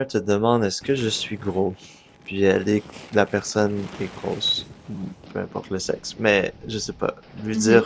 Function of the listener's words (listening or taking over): listening